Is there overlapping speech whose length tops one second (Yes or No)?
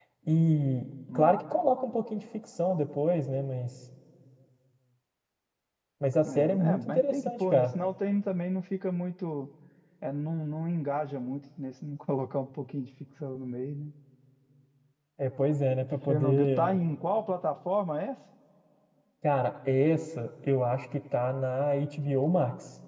Yes